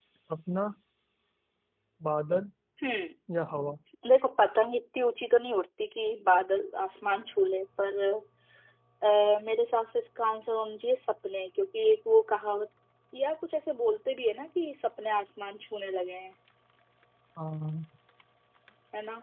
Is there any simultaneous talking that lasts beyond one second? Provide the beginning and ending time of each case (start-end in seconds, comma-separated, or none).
none